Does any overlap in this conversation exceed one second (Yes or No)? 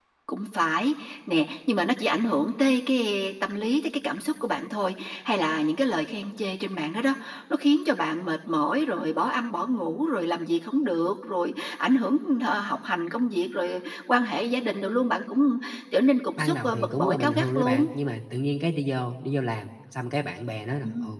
Yes